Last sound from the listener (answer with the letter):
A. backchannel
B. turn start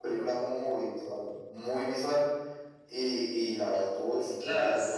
B